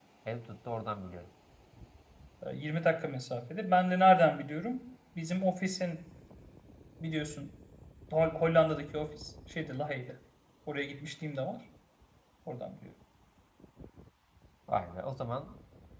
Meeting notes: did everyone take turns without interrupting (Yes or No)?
Yes